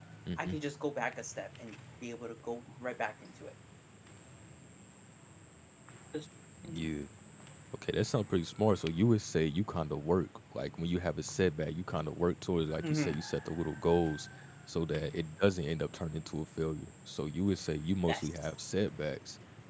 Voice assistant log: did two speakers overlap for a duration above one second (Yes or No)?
No